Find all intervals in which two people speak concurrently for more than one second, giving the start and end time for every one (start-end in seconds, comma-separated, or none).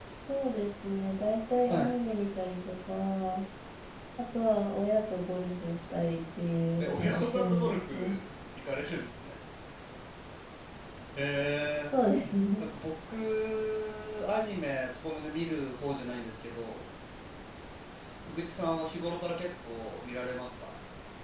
6.8-8.2